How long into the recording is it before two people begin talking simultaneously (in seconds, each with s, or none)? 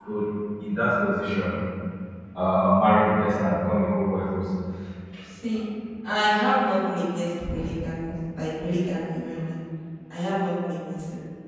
none